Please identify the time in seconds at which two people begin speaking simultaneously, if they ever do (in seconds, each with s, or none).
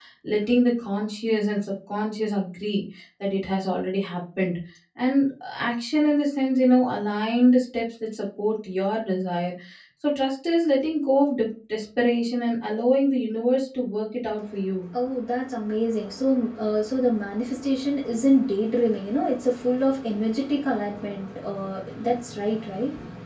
none